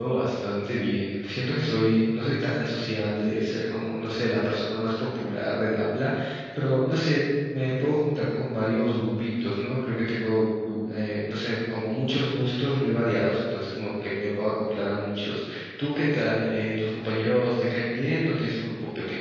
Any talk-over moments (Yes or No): No